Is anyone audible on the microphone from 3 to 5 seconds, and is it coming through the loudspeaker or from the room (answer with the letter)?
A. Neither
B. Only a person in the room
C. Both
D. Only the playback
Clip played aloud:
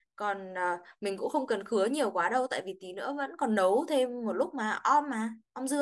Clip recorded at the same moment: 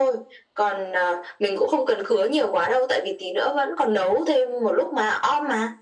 D